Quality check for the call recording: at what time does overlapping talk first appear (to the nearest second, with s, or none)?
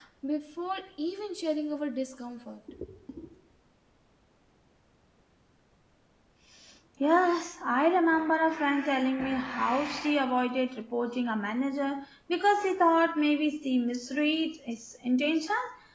none